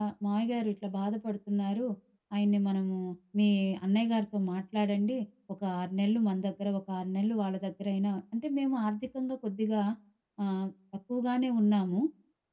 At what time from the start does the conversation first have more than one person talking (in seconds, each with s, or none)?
none